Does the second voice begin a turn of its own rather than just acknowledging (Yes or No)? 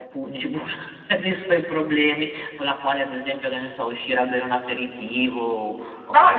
Yes